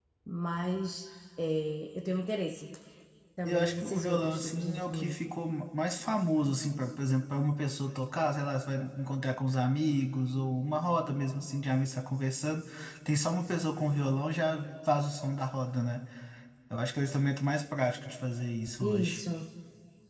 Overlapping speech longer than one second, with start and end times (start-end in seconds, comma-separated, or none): 3.5-5.1